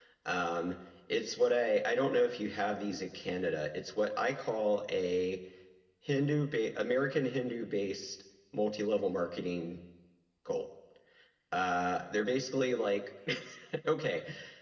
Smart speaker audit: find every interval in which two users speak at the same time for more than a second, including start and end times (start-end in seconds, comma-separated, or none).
none